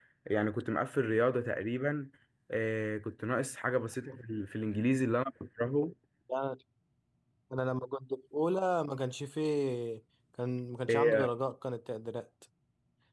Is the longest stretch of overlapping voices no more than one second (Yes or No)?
Yes